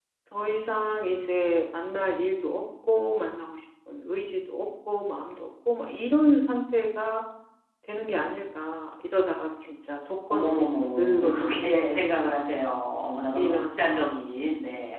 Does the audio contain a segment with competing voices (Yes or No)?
Yes